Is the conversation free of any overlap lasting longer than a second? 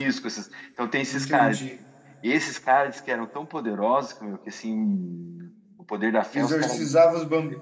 Yes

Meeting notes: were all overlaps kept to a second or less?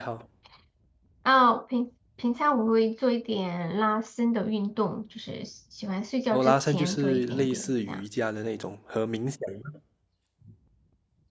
No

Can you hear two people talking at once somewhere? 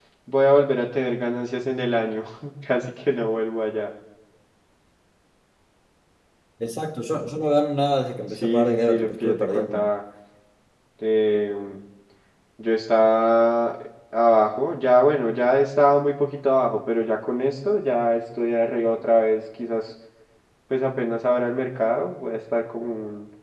Yes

